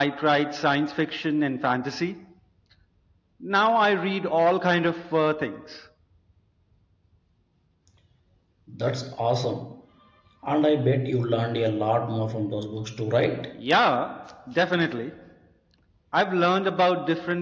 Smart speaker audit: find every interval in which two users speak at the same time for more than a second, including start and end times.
none

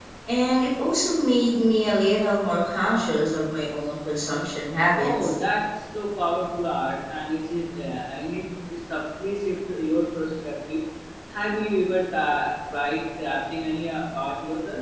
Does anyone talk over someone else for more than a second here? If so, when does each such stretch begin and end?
none

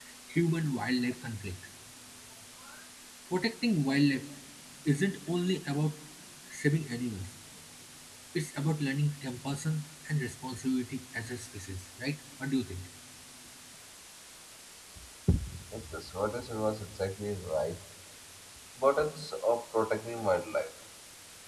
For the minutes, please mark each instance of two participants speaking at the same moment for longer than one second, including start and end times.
none

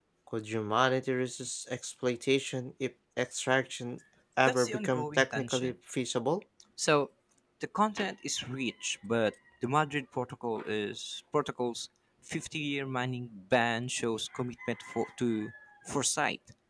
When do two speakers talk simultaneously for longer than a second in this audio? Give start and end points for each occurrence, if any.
4.5-5.7

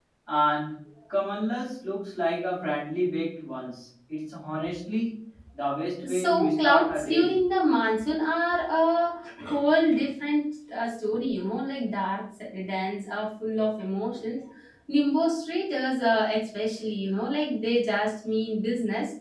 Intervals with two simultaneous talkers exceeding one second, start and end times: 6.0-7.4

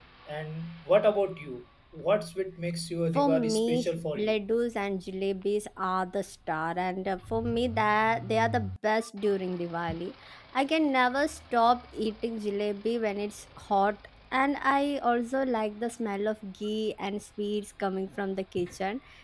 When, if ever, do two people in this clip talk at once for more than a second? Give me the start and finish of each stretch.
3.2-4.4

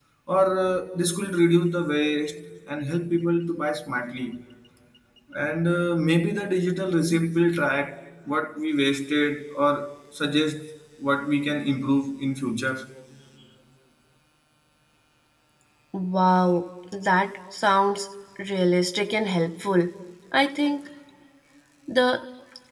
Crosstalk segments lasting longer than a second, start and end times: none

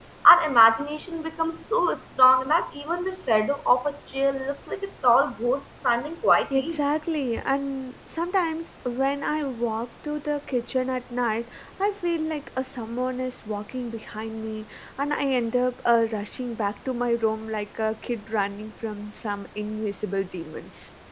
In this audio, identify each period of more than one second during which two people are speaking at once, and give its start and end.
none

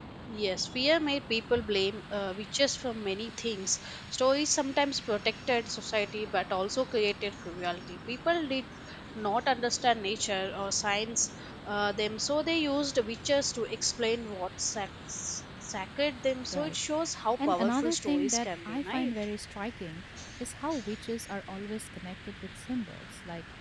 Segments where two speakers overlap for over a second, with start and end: 17.5-19.1

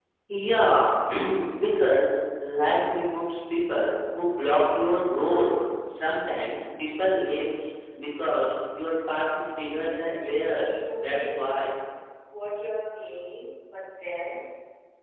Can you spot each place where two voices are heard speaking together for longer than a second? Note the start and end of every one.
9.8-11.7

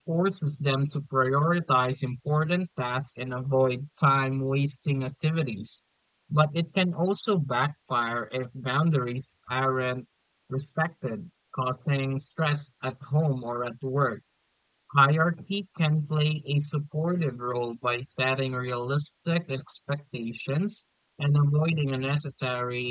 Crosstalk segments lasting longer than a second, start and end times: none

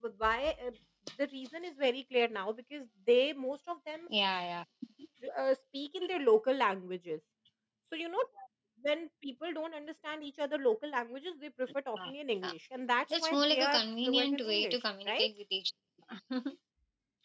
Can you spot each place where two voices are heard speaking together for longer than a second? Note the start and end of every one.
13.1-15.3

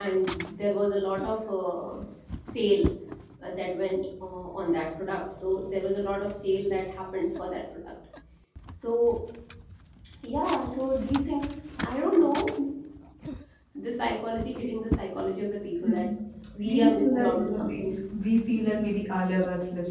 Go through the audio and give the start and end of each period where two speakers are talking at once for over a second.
16.6-17.8

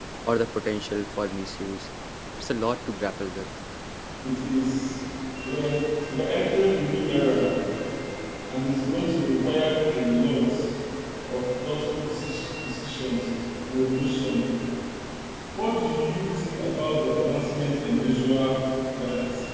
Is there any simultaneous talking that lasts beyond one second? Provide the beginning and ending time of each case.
none

